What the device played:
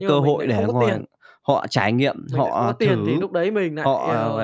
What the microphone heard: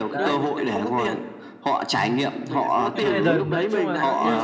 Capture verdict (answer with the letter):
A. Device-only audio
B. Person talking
B